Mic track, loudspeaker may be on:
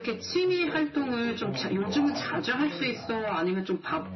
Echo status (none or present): present